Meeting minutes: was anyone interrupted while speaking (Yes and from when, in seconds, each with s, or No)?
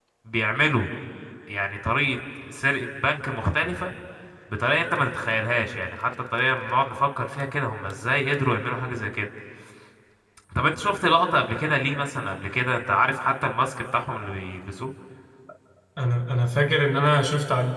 No